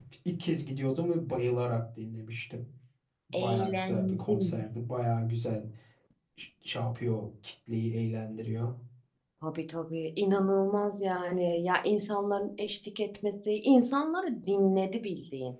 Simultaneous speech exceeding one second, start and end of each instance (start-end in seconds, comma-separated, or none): 3.3-4.5